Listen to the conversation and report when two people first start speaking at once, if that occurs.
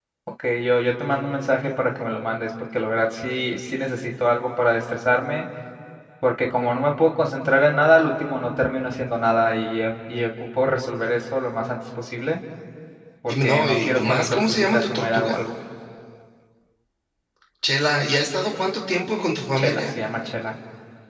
13.3 s

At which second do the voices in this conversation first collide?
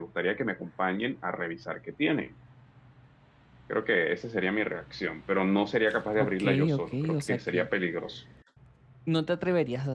6.2 s

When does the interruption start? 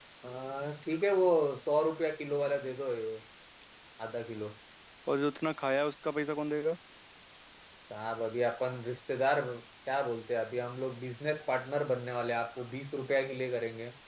none

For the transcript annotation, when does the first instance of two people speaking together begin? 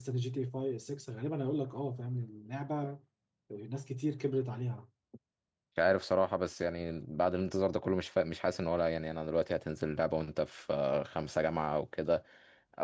none

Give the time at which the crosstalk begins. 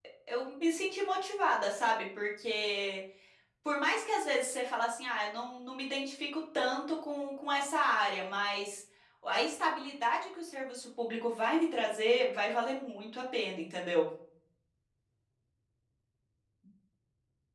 none

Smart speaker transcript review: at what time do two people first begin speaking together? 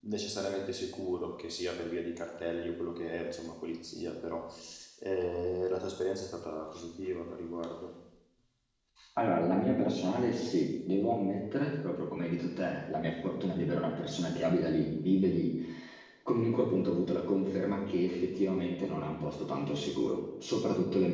none

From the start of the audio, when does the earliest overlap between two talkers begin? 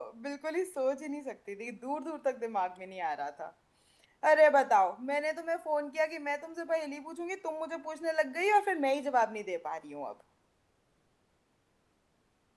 none

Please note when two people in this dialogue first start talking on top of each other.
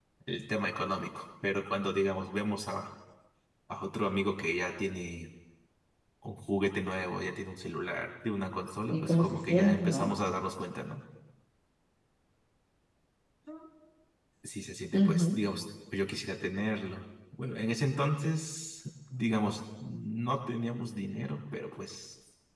8.9 s

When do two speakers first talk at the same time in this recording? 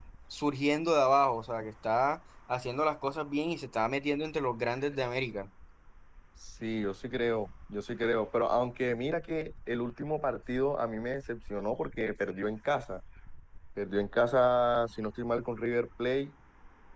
none

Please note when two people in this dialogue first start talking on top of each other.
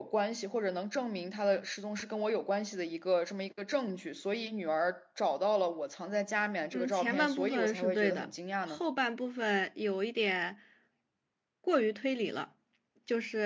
6.7 s

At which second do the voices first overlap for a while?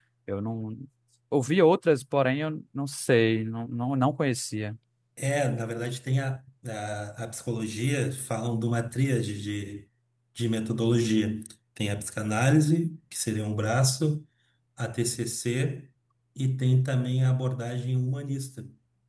none

